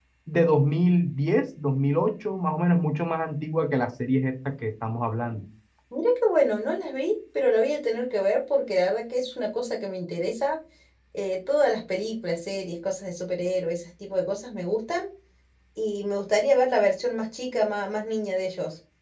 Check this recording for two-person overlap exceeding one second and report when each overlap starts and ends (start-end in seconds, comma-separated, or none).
none